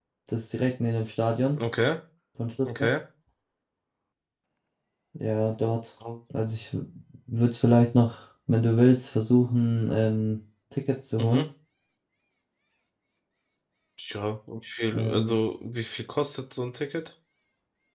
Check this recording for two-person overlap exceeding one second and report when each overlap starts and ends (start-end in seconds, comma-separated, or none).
none